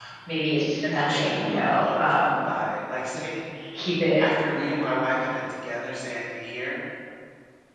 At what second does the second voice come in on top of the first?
0.9 s

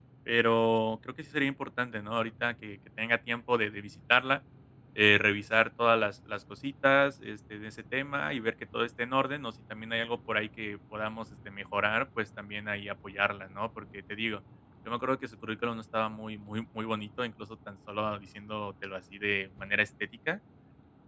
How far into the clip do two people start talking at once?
none

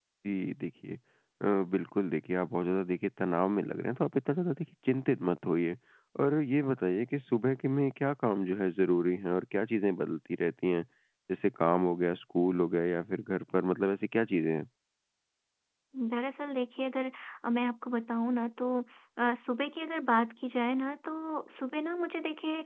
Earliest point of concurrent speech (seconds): none

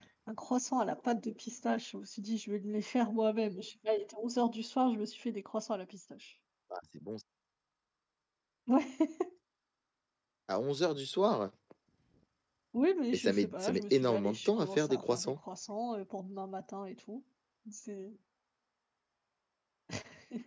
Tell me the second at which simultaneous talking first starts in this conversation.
13.1 s

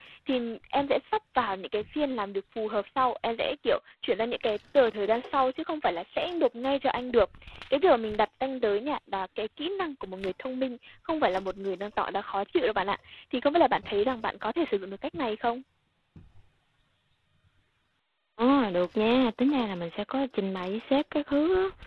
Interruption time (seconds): none

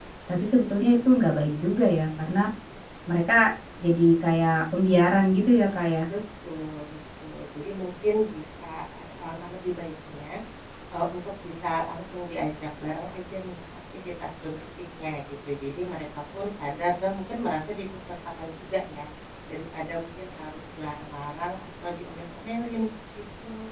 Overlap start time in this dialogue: none

